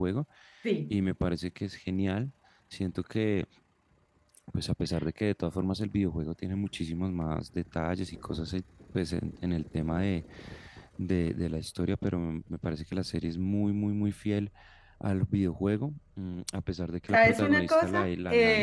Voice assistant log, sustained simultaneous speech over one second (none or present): present